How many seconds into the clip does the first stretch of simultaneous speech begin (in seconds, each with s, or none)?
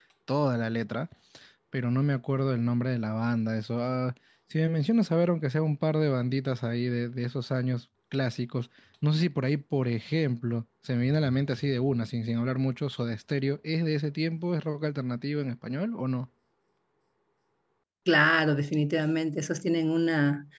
none